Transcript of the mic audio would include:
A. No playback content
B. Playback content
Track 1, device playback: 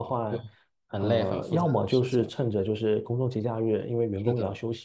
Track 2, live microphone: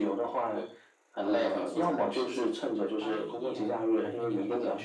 B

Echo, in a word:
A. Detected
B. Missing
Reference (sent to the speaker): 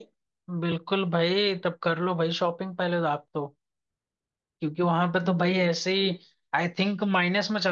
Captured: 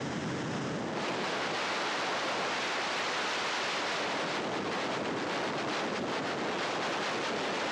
B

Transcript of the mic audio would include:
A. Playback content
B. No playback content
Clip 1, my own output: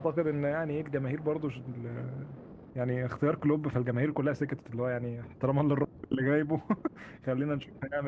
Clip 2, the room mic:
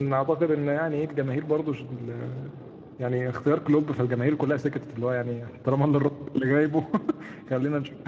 A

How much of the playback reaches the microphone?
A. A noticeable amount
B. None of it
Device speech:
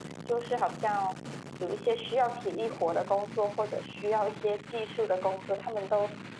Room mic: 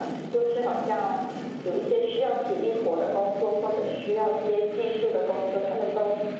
A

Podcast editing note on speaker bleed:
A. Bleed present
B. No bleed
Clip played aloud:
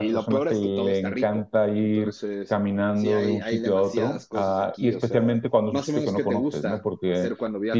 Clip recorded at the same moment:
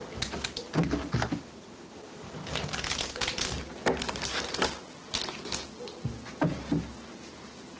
B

